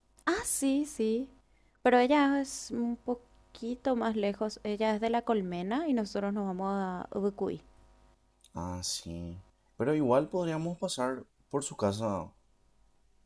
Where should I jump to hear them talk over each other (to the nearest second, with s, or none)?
none